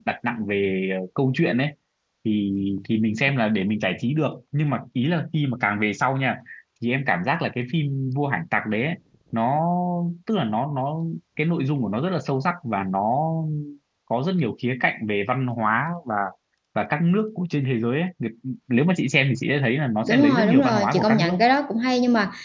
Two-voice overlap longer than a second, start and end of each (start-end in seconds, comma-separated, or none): 20.0-21.3